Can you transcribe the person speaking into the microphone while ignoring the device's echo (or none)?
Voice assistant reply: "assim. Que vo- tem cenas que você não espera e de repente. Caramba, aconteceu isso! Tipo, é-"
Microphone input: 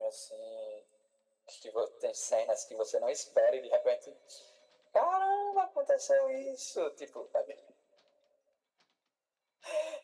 none